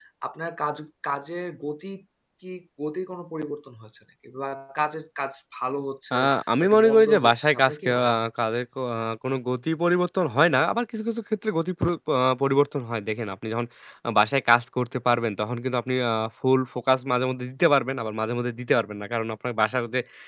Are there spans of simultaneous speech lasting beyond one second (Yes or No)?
Yes